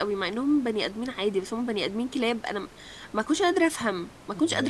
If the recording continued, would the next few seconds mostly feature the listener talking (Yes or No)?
Yes